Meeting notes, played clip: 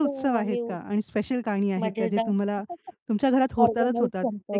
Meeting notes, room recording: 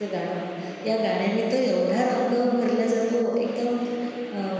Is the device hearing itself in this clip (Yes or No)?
No